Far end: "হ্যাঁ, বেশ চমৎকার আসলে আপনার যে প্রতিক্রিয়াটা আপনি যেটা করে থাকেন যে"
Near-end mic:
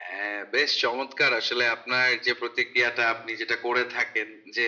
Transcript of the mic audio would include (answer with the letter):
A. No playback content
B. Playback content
B